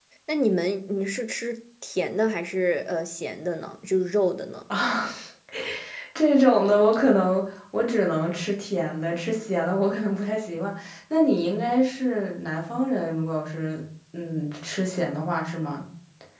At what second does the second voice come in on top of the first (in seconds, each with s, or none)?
none